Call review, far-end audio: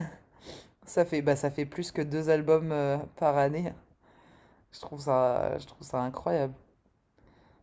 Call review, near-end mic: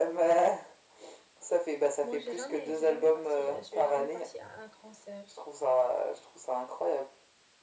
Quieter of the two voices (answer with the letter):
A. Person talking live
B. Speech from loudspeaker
A